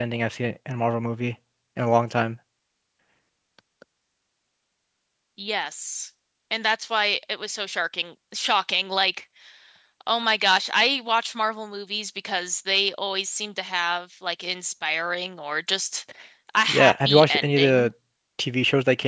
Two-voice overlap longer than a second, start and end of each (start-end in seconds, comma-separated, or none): 16.7-17.9